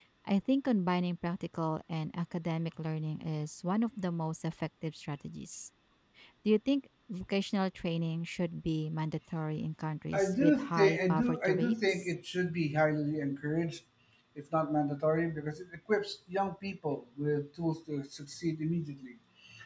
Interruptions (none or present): present